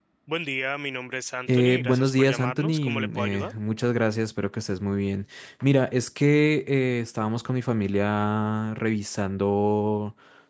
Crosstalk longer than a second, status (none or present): present